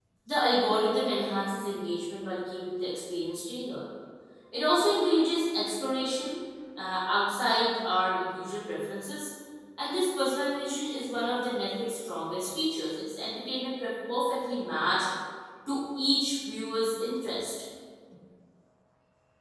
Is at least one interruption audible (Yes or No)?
No